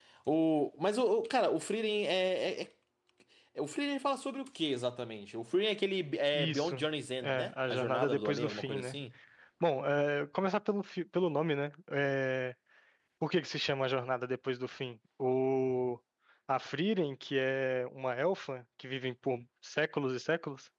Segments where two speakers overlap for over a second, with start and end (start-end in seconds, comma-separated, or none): 7.2-9.0